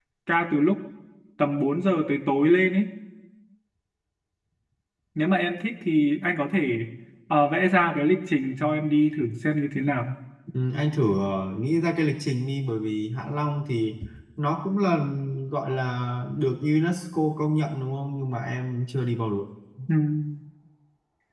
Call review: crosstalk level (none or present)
none